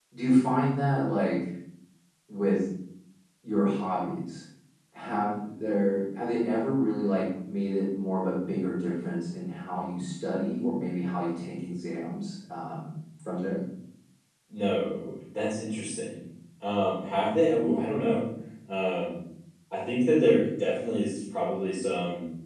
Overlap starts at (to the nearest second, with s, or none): none